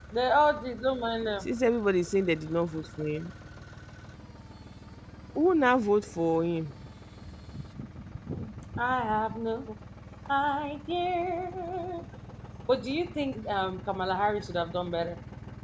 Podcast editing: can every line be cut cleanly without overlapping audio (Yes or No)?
Yes